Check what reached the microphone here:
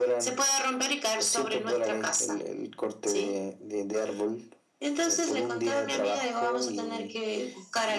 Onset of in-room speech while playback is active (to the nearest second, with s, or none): none